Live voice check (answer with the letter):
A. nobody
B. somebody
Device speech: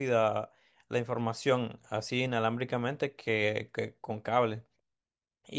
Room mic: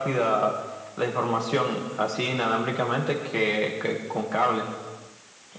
A